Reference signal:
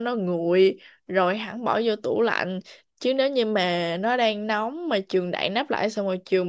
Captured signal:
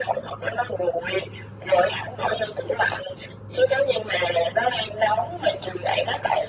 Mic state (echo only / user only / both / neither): echo only